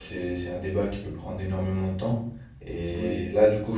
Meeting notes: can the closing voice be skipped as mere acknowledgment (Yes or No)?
Yes